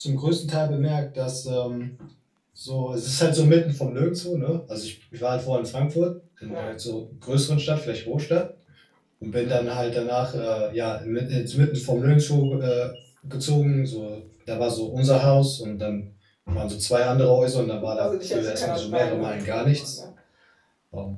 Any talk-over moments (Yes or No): Yes